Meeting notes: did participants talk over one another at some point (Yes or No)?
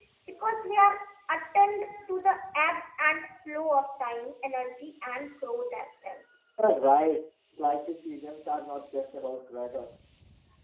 No